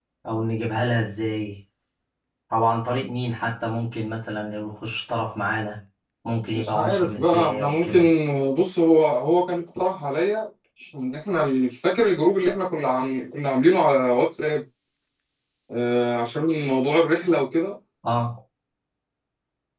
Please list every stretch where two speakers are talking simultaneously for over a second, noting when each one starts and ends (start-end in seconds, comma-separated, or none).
6.5-8.1